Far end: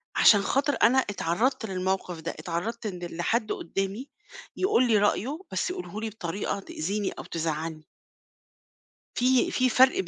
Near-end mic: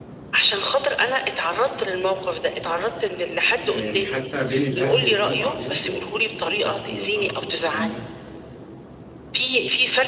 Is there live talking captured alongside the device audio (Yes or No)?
Yes